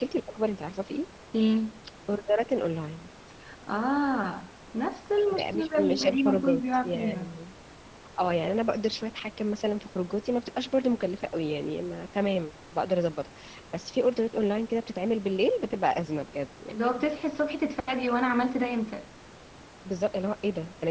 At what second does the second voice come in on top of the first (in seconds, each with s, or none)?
5.3 s